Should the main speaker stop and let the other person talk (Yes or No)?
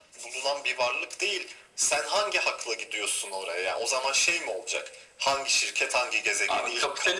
Yes